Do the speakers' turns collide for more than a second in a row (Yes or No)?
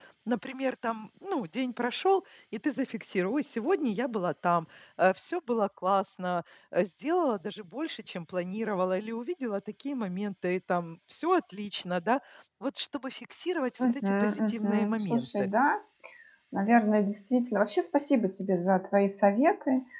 Yes